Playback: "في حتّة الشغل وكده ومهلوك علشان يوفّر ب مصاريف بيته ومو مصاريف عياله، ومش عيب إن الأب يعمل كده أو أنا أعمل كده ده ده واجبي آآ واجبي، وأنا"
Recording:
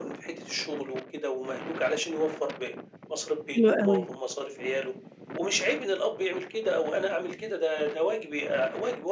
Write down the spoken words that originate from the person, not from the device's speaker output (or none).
حلو أوي.